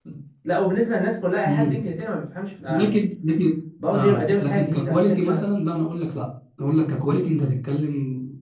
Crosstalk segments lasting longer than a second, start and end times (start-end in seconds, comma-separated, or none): 3.9-5.4